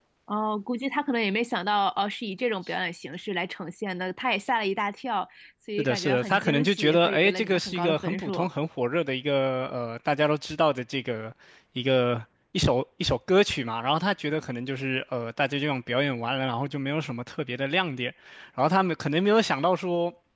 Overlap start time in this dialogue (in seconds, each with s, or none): 5.8 s